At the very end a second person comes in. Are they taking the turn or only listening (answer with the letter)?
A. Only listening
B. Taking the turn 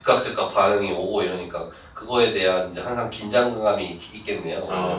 B